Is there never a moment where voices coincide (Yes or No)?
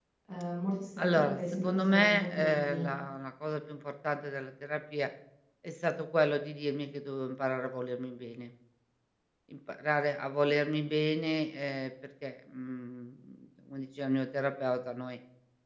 No